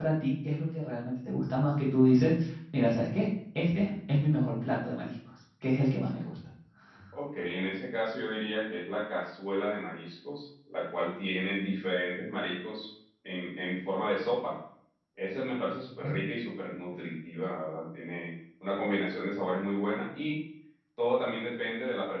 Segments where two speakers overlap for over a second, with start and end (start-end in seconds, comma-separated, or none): none